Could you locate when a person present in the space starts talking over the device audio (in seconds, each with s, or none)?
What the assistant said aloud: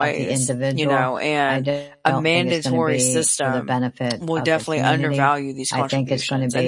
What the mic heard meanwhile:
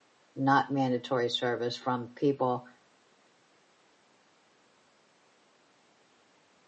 0.4 s